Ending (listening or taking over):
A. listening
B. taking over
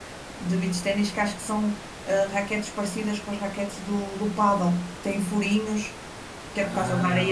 A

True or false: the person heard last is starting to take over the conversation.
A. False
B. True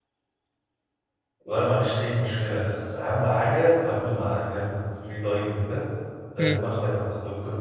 A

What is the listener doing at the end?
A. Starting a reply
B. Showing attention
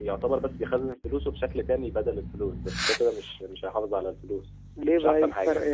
A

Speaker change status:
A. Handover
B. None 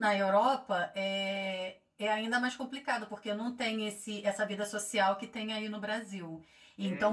B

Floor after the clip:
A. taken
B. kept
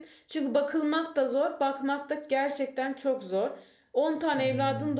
B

